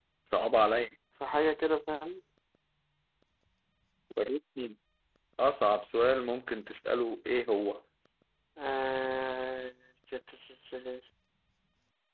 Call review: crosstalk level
none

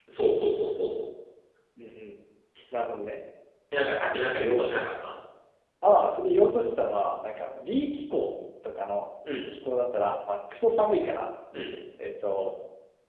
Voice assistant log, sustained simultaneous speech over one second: none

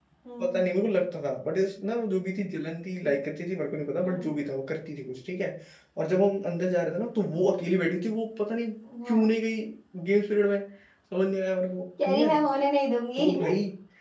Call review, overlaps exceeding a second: none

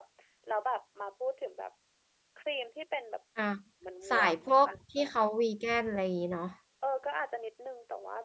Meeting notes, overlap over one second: none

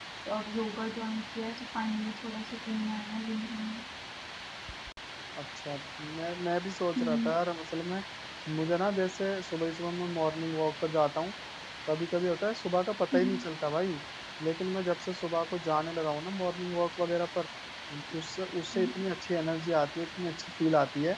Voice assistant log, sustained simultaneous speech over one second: none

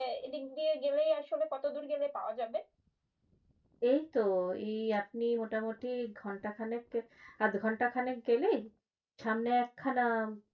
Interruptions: none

